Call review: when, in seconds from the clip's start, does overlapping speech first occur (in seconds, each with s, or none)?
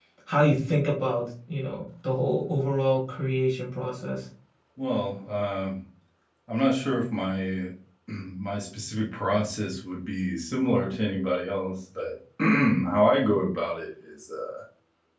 none